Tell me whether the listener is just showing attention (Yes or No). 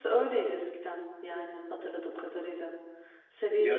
Yes